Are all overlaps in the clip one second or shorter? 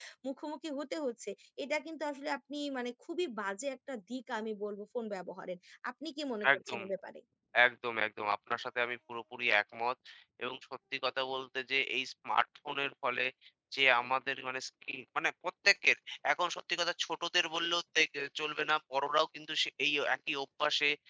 Yes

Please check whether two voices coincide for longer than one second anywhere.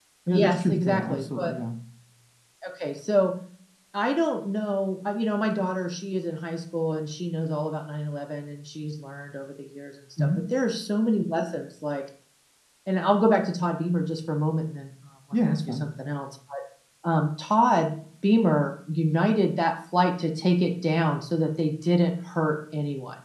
Yes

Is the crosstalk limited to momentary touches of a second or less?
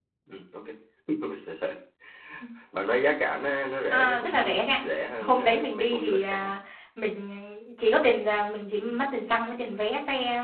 No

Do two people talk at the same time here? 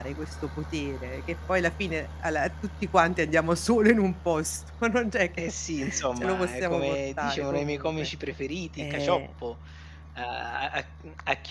Yes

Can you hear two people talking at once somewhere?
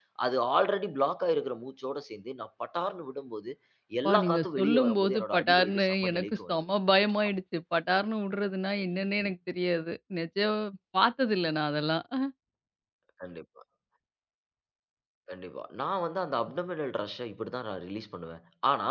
Yes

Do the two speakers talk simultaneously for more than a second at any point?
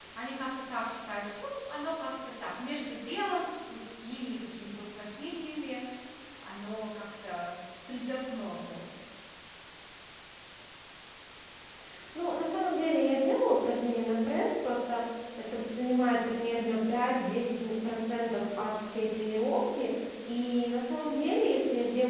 No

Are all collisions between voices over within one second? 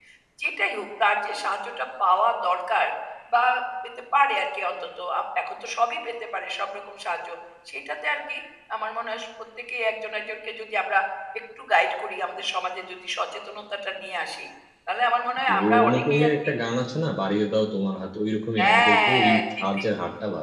No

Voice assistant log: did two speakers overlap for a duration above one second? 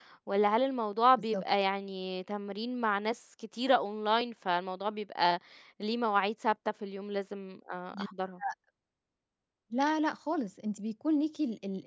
No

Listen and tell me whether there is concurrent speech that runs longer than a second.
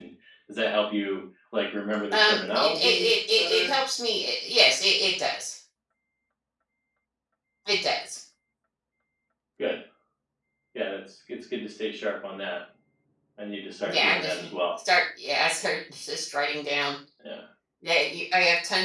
Yes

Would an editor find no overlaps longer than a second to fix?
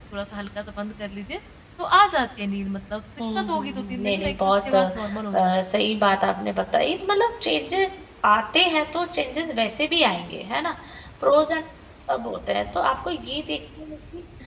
No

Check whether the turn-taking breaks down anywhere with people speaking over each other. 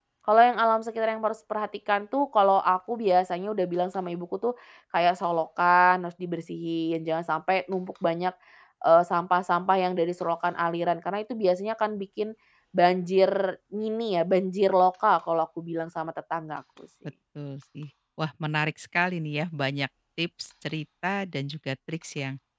No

